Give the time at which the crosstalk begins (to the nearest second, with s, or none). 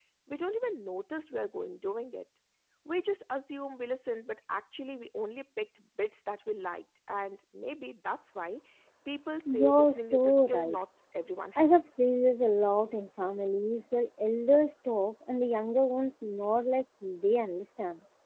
9 s